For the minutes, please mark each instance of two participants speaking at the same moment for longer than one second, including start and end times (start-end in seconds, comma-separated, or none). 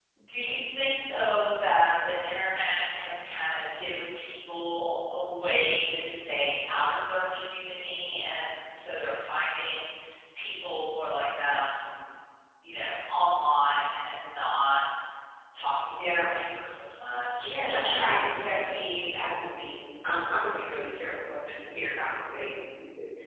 17.4-18.9